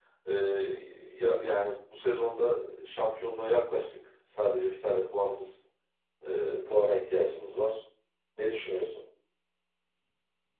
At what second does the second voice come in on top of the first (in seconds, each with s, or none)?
none